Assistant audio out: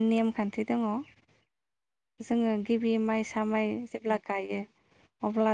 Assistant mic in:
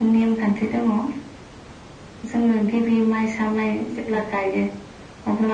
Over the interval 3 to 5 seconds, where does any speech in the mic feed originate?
echo only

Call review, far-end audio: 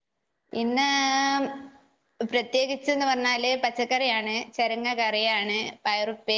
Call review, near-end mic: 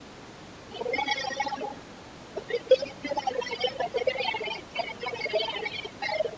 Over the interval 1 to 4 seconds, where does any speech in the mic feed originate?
echo only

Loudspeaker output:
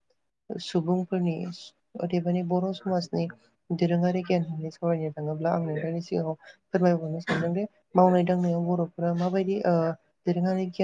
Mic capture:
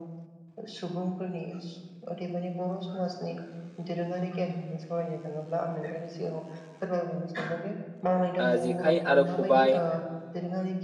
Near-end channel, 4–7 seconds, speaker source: echo only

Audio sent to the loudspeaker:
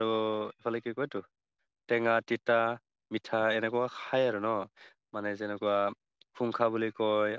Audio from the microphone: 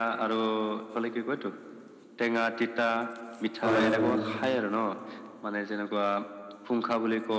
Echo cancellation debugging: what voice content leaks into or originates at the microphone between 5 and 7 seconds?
echo only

